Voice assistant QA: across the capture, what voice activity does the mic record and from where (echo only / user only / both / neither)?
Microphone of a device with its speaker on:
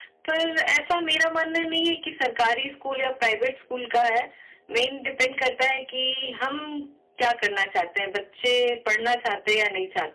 echo only